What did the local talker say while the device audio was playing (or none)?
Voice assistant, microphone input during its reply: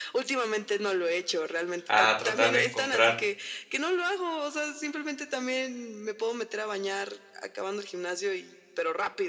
a tratar de encontrar